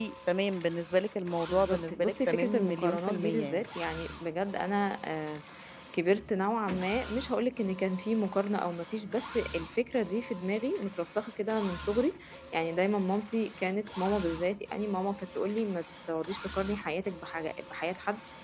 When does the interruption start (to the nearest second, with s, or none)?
1 s